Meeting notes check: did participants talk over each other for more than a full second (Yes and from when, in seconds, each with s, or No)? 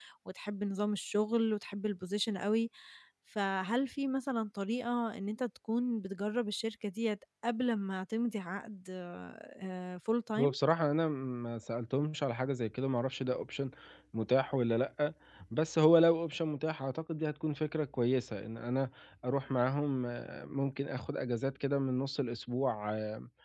No